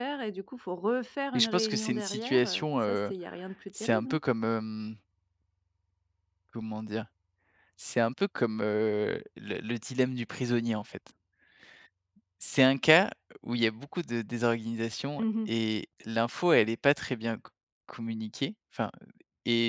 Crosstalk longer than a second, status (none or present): present